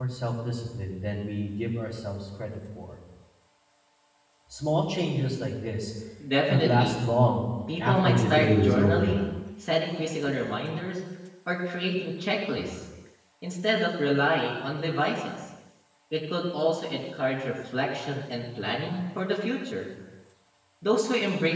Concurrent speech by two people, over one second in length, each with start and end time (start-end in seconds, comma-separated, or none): 7.8-9.1